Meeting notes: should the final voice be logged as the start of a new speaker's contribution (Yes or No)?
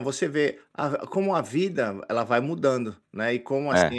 No